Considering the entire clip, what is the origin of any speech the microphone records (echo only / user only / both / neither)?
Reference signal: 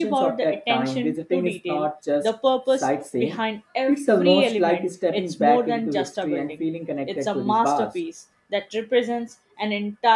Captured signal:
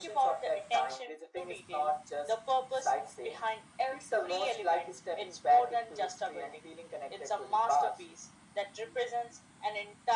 echo only